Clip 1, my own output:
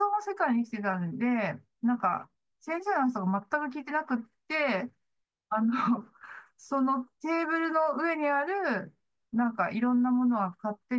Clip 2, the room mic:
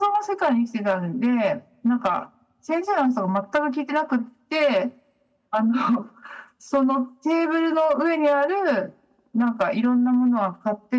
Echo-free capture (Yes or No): No